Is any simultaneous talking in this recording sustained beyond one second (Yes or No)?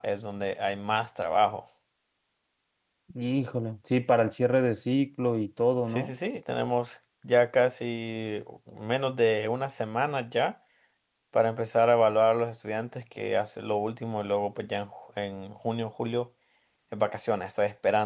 No